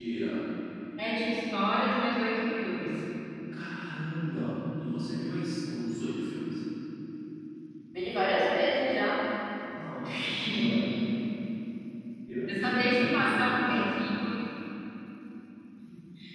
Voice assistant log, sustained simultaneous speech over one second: present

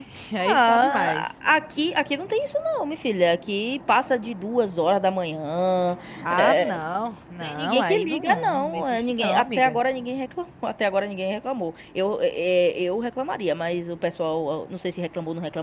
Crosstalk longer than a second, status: present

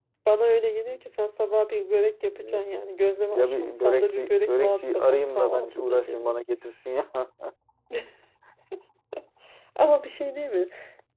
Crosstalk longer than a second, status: present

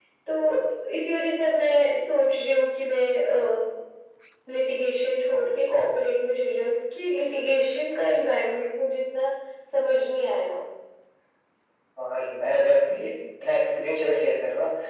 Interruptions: none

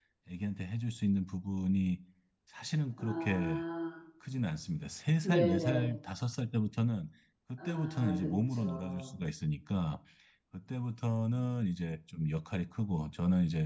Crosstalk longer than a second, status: present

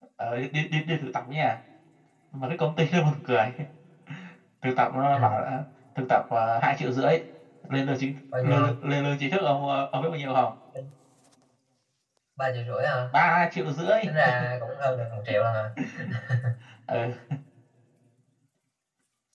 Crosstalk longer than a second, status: none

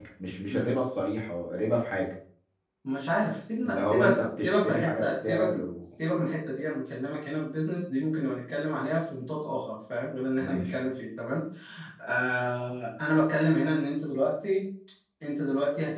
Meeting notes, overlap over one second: present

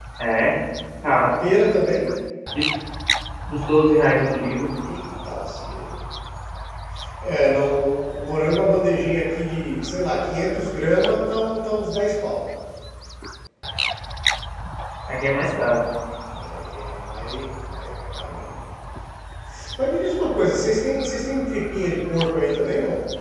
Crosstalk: none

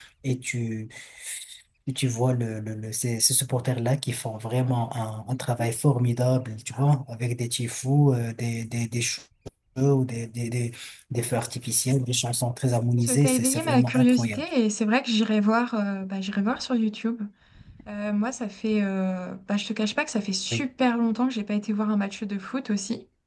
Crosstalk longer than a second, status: present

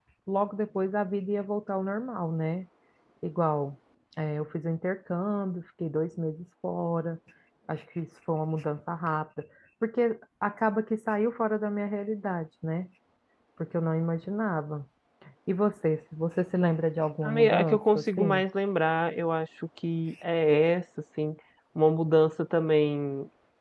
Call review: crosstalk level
present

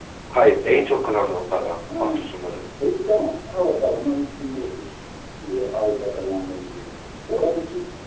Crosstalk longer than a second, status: none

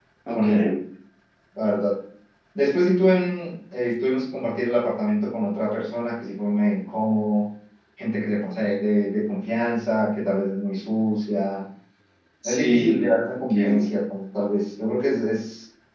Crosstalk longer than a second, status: present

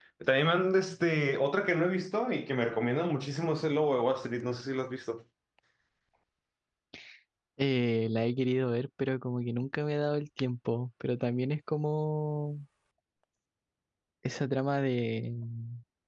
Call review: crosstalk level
none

